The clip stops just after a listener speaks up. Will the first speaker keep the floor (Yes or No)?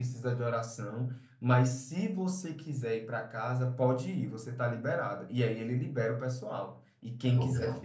Yes